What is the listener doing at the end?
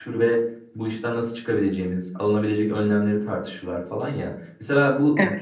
listening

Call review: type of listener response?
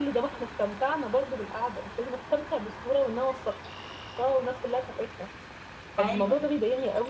listening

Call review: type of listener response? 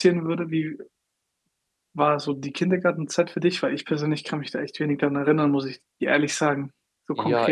taking over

